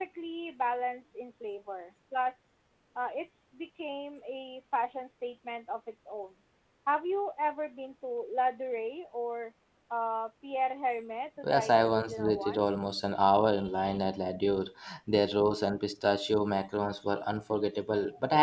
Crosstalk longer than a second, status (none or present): present